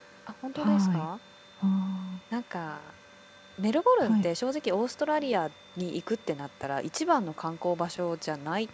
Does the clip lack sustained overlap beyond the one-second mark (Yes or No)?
Yes